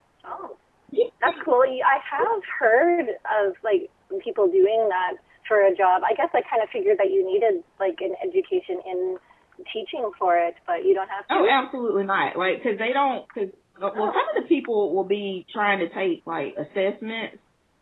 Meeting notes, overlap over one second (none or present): none